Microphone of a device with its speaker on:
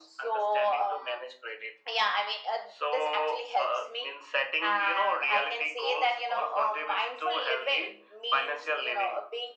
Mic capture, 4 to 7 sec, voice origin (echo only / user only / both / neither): echo only